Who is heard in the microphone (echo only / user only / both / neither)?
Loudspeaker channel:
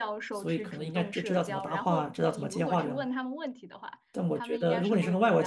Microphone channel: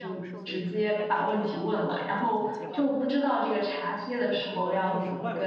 both